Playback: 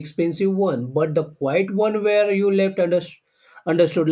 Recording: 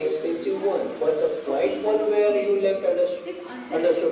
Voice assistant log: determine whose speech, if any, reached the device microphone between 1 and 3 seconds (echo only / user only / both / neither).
both